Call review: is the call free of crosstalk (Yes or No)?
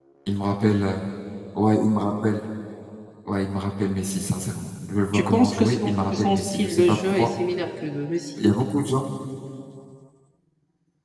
No